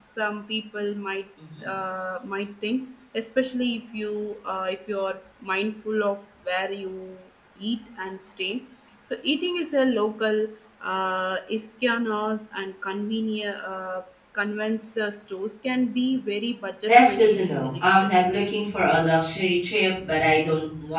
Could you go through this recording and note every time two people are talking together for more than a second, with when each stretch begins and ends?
16.9-18.3

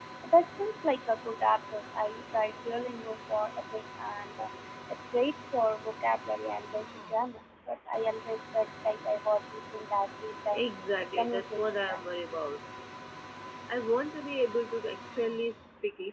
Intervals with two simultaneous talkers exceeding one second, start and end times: 11.2-12.4

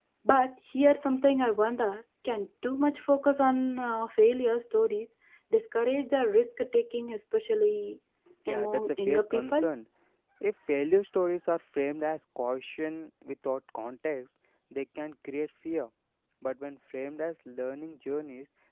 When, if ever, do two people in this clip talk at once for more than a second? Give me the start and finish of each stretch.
8.5-9.7

